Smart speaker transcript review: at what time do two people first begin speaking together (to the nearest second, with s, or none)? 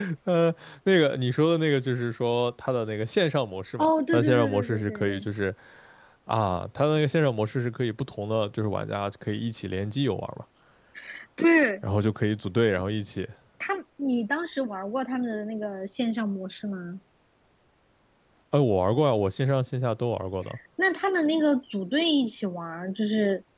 4 s